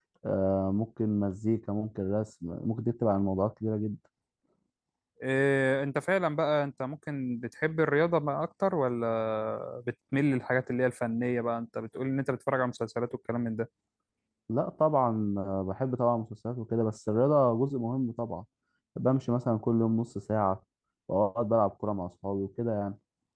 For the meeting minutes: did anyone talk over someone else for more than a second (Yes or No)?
No